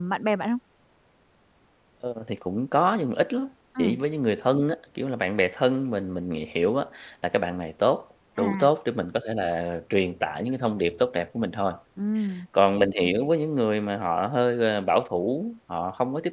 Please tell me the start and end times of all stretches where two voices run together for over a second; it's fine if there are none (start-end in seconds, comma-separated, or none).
none